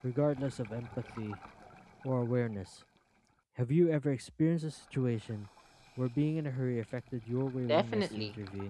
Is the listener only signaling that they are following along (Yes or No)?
No